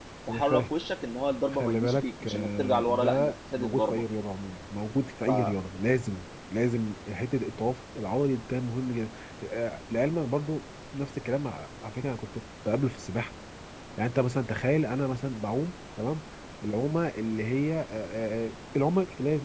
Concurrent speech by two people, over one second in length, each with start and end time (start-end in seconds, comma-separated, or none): 1.5-4.0